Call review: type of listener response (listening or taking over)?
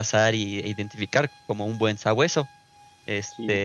listening